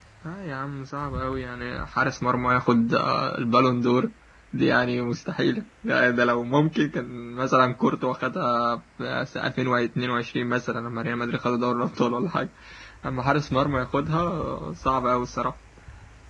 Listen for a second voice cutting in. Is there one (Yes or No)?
No